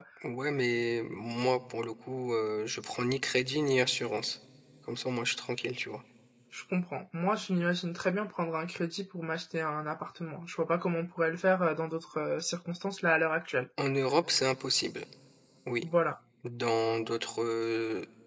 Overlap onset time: none

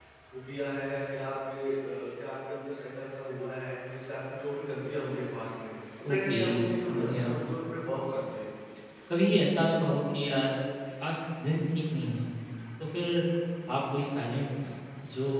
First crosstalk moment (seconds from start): 6.0 s

